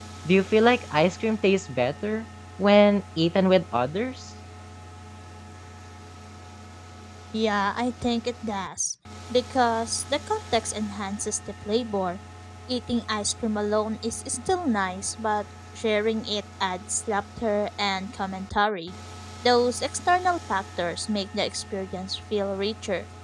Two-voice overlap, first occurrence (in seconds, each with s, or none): none